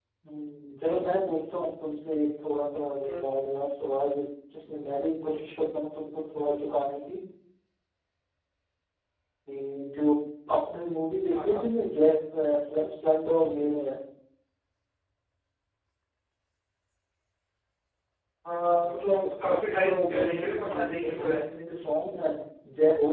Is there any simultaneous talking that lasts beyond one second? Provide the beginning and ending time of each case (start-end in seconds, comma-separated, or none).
18.8-21.4